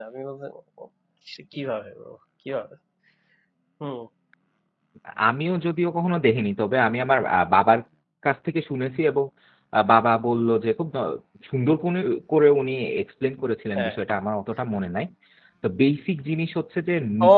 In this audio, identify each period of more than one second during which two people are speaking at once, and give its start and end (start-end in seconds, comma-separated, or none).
none